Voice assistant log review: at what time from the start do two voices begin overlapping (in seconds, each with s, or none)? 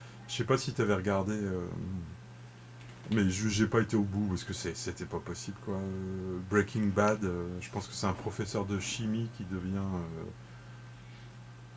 none